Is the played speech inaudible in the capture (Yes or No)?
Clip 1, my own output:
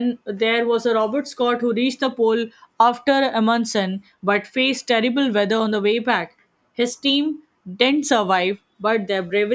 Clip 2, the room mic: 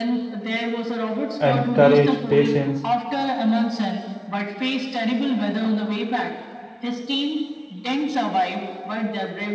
No